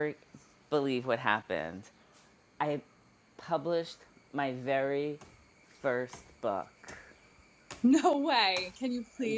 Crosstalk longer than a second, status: none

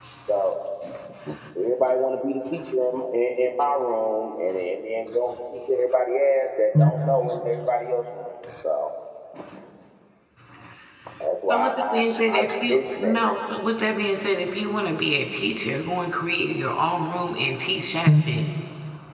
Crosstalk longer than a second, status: present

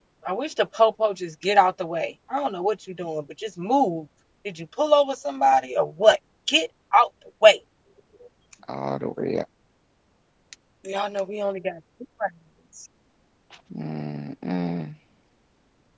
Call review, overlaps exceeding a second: none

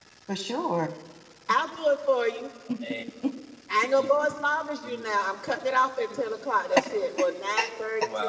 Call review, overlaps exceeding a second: none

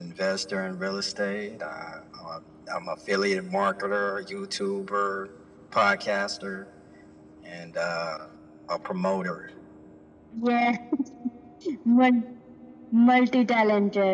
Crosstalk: none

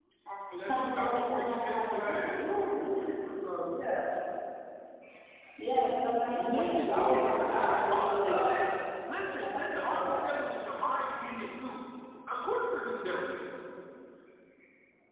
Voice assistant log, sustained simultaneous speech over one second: present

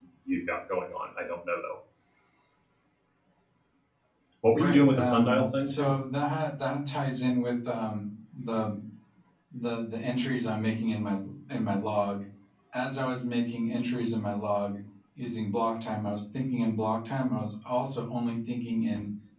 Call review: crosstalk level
present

